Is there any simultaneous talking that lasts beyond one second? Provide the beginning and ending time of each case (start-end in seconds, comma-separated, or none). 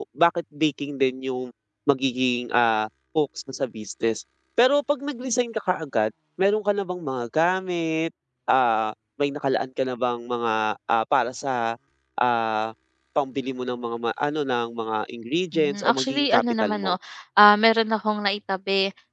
15.5-17.0